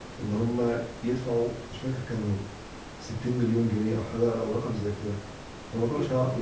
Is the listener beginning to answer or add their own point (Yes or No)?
No